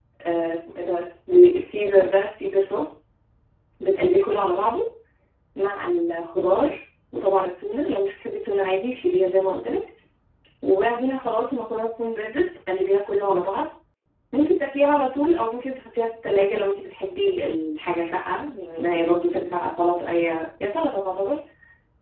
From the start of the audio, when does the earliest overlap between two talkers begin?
none

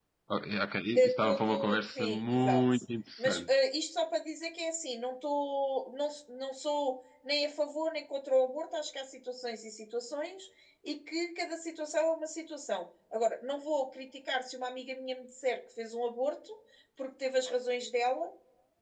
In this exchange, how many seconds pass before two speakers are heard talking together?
0.9 s

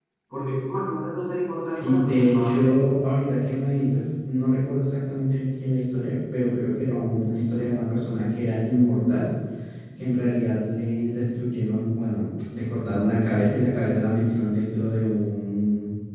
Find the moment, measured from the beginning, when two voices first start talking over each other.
1.6 s

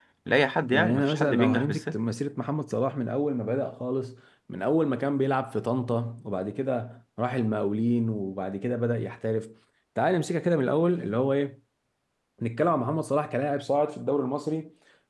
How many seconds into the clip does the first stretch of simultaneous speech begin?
0.7 s

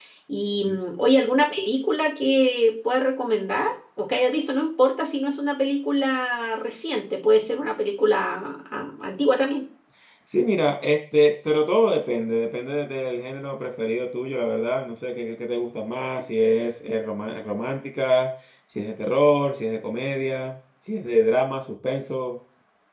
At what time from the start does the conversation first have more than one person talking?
none

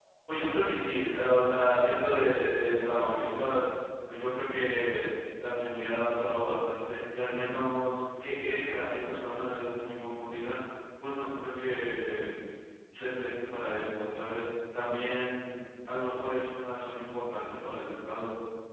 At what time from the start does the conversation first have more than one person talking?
1.1 s

